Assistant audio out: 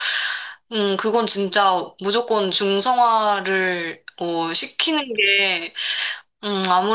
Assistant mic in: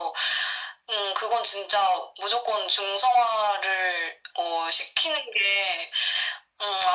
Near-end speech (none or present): none